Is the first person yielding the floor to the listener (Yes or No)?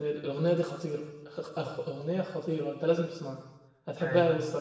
No